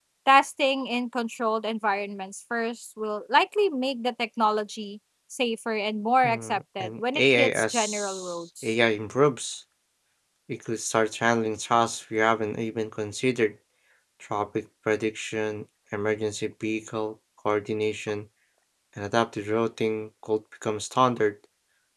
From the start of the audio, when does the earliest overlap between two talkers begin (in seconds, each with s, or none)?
6.2 s